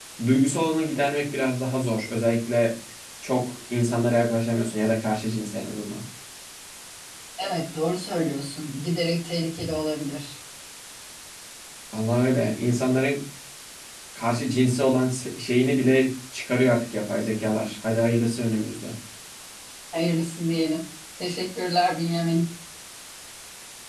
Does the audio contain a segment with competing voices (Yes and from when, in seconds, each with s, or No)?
No